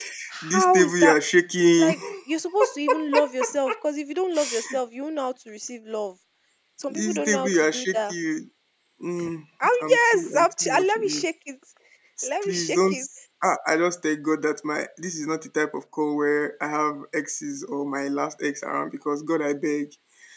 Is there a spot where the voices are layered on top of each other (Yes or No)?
Yes